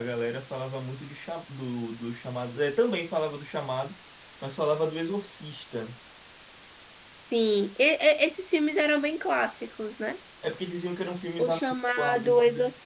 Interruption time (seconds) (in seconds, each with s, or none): 11.4 s